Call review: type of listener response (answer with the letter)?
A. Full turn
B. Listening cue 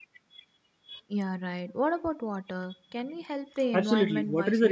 A